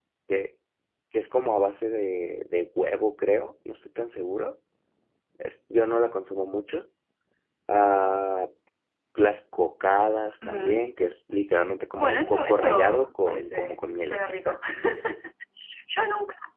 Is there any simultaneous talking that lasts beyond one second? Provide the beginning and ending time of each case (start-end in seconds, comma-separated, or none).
12.0-14.6